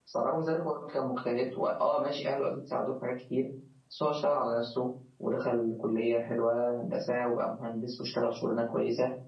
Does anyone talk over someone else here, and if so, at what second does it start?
none

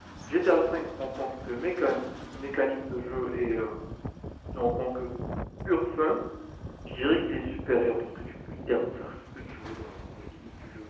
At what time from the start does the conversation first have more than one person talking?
none

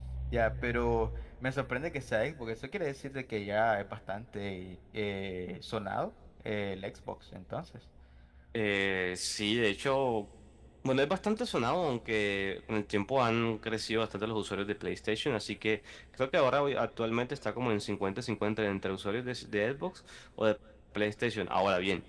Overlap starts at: none

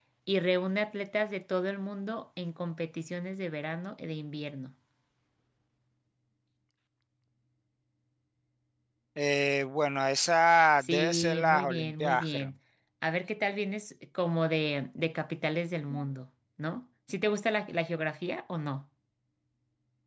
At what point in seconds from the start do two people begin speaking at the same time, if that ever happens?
11 s

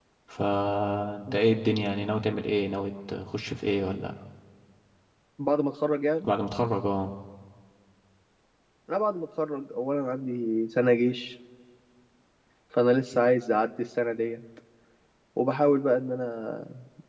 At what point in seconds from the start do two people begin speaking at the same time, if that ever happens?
none

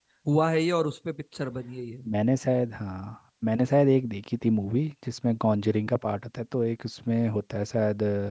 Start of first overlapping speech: none

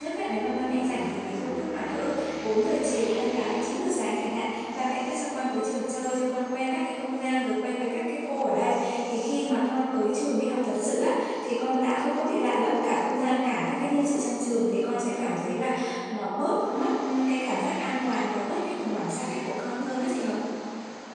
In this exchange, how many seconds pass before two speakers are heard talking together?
none

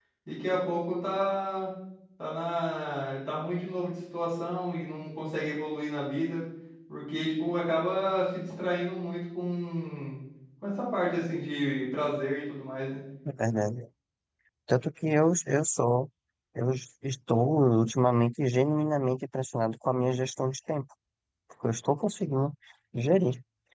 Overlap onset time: none

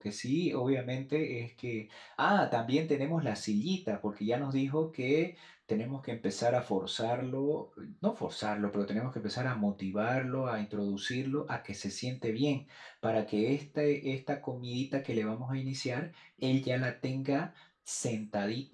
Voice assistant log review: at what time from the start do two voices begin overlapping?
none

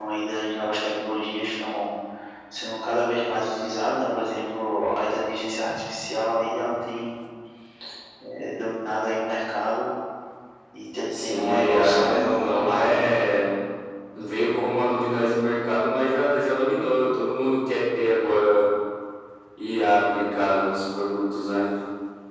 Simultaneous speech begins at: 11 s

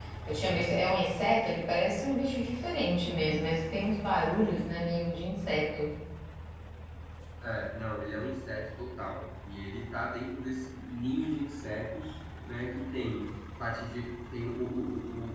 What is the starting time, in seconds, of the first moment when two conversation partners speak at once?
none

